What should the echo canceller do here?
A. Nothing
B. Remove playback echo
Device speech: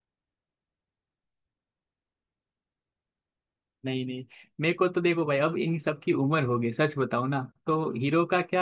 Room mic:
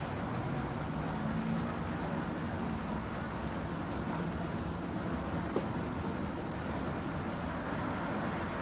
A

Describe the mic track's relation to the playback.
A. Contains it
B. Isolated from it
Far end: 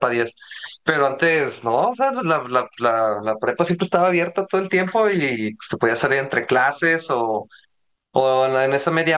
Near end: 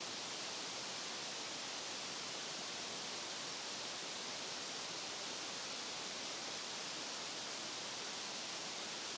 B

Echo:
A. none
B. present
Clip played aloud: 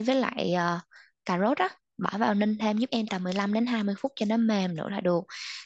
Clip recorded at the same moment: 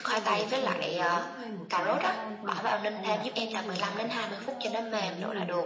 B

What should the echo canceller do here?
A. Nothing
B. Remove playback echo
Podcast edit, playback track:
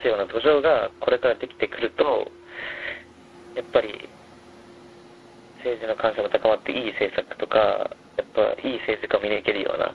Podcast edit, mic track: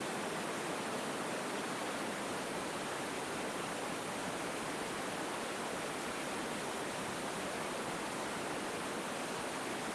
A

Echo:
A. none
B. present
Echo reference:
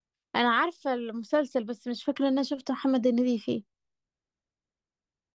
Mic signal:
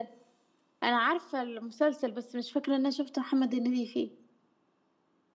B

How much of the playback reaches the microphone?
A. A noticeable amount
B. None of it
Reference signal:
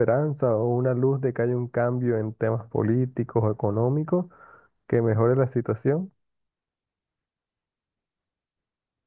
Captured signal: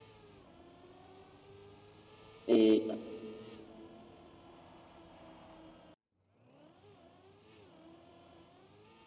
B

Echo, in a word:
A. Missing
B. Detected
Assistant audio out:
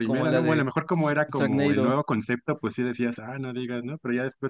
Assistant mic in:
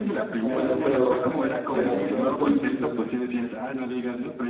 B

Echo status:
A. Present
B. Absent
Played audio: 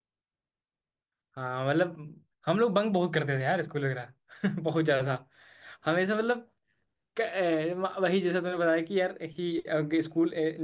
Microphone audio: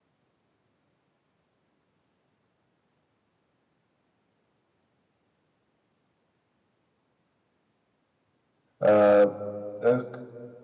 B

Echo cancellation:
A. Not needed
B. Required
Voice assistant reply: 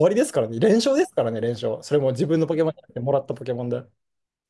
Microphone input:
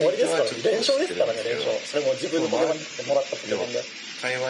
B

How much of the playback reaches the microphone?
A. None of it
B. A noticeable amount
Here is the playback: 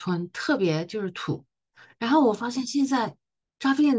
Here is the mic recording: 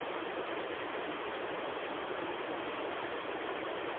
A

